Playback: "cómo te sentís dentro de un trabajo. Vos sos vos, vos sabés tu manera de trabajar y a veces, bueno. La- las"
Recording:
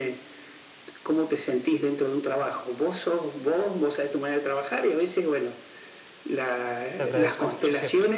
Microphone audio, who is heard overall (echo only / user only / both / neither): both